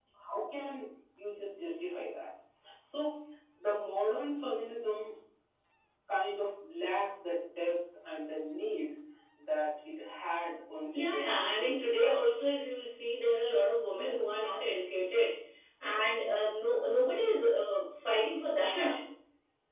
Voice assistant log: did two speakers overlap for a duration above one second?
Yes, from 10.9 s

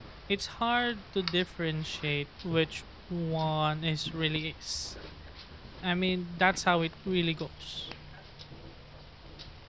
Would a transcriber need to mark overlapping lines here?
No

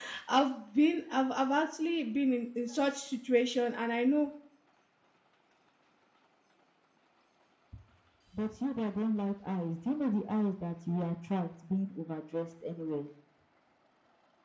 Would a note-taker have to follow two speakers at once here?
No

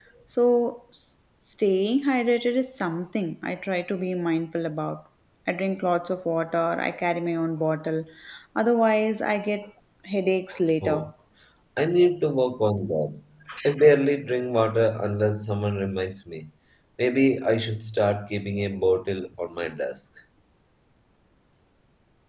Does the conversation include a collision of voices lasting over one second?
No

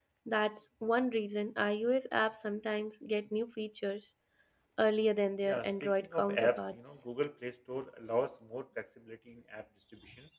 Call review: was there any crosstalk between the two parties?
Yes, from 5.5 s

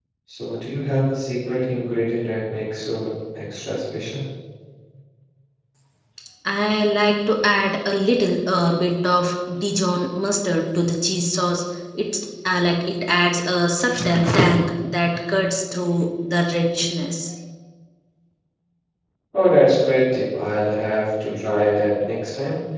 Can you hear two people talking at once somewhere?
No

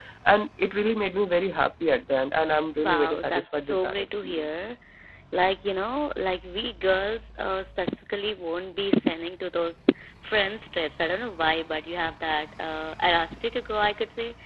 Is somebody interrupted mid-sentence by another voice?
Yes, from 2.8 s

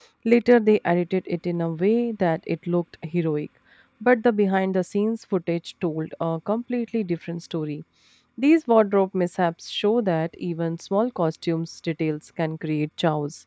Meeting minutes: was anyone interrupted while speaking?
No

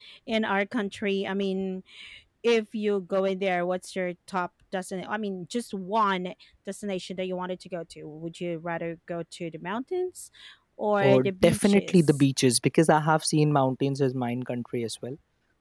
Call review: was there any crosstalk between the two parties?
Yes, from 11.0 s

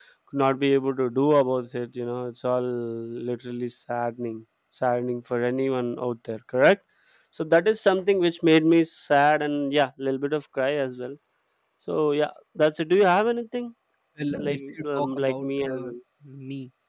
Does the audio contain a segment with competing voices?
Yes, from 14.4 s

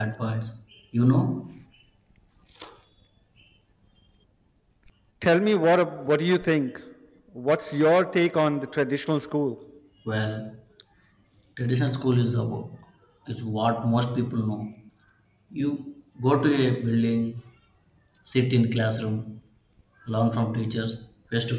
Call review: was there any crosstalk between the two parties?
No

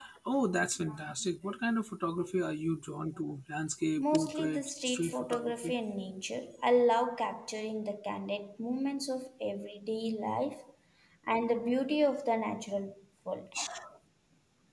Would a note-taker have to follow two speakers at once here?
Yes, from 4.0 s

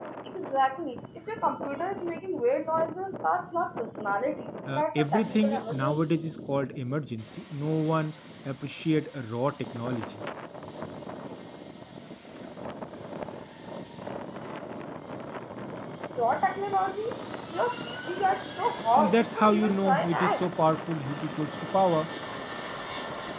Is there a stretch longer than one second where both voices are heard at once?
Yes, from 4.7 s

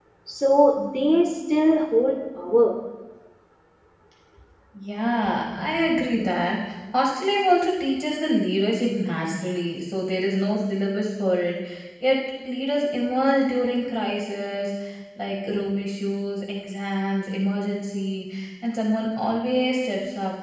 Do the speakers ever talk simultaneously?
No

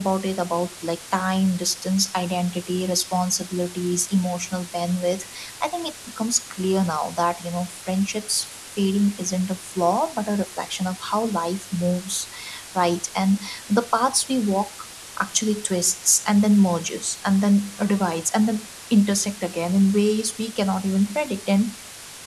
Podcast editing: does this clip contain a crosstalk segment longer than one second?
No

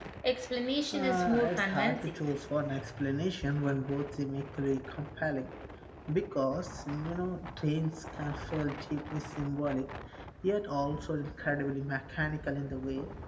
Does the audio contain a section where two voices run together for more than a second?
Yes, from 0.9 s

